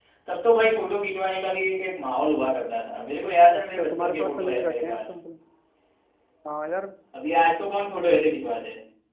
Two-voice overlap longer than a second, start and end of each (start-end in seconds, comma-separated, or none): 3.6-5.0